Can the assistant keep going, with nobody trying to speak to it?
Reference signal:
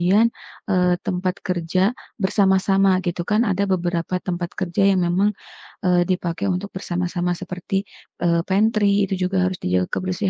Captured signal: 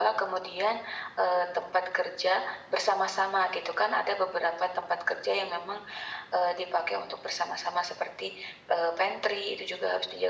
Yes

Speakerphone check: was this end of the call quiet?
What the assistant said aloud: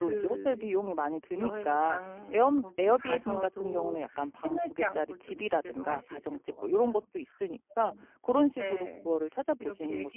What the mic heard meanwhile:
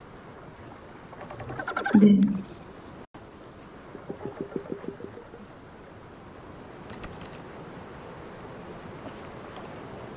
No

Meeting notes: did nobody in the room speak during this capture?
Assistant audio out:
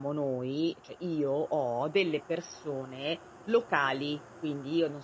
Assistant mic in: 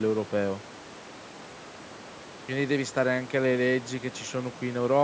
No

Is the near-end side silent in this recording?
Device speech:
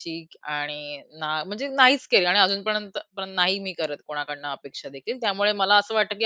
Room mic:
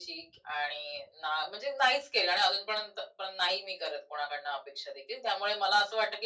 Yes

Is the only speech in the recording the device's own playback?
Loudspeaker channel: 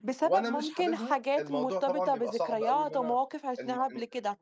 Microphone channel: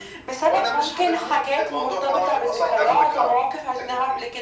No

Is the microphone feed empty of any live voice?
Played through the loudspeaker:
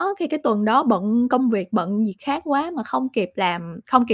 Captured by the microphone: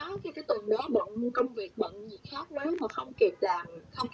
Yes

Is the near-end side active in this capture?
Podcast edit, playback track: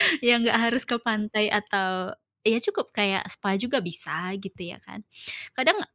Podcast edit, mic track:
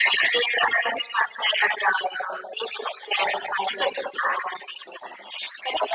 No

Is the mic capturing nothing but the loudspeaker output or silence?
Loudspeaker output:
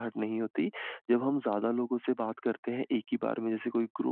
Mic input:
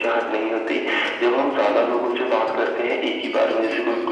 No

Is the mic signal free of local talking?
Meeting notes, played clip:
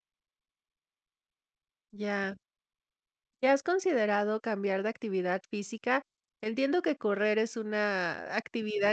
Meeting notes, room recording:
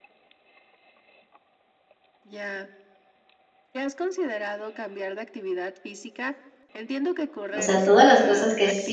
No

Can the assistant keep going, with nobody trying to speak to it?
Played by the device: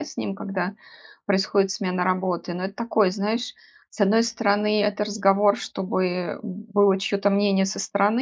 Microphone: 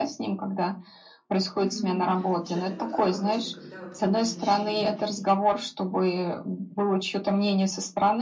No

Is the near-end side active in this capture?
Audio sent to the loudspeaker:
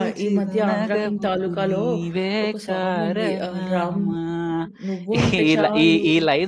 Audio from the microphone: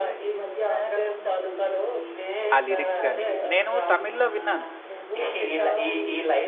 Yes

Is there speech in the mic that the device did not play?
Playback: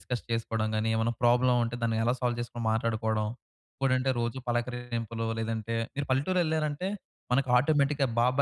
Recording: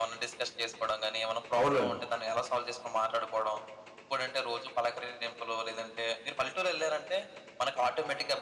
Yes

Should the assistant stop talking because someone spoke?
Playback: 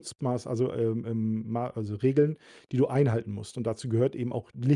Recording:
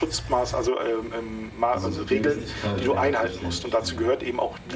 Yes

